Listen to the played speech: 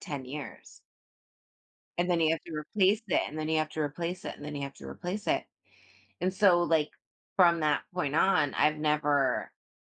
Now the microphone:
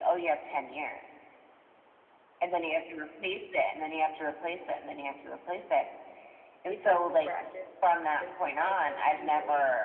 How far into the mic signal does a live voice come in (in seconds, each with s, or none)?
6.7 s